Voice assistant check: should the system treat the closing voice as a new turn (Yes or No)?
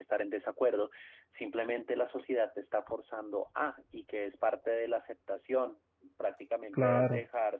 No